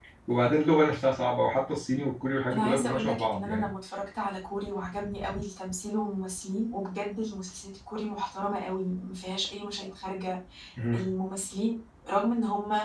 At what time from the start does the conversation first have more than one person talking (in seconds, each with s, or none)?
2.5 s